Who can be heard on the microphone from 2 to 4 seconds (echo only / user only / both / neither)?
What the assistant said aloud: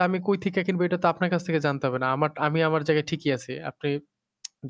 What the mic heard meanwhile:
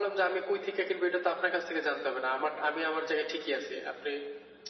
echo only